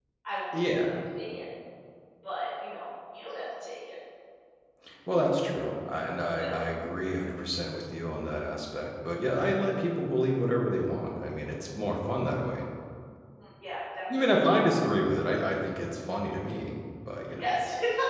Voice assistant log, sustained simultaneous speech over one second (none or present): none